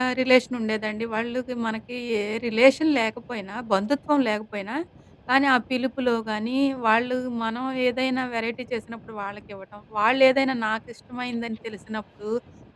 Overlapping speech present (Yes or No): No